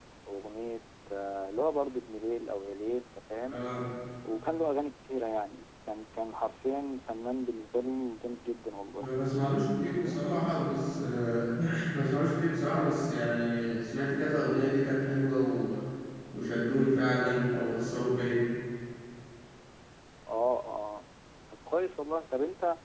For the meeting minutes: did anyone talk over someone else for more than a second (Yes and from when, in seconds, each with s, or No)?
No